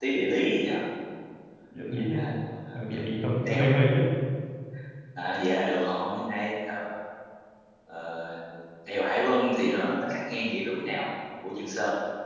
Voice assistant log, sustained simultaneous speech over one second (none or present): none